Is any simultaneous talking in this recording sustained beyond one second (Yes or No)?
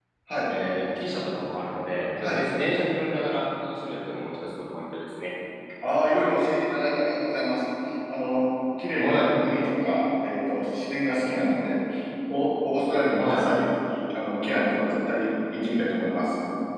No